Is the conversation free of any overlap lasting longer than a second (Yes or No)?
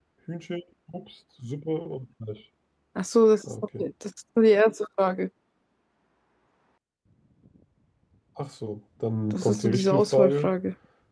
No